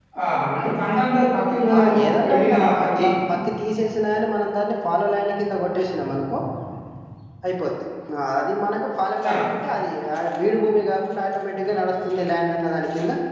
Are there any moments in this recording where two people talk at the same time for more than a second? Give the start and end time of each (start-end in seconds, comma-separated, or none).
1.8-3.0